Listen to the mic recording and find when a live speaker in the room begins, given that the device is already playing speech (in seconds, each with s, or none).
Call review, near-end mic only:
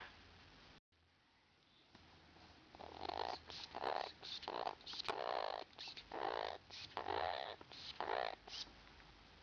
none